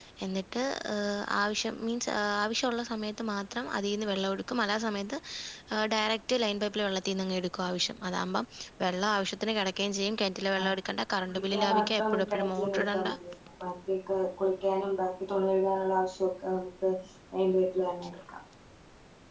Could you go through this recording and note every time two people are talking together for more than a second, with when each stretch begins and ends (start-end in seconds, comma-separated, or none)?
11.3-13.1